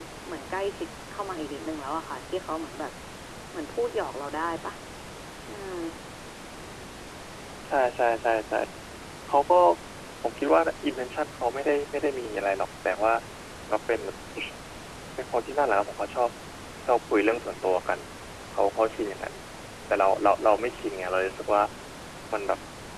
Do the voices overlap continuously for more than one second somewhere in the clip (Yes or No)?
No